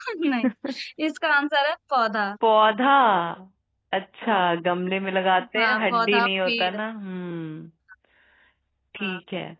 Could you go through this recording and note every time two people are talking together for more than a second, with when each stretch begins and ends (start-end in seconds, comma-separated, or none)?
5.6-6.8